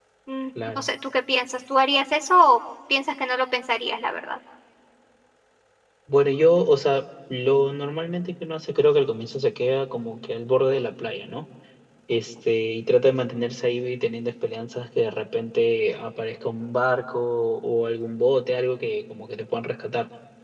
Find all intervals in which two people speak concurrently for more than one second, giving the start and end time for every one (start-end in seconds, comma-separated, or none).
none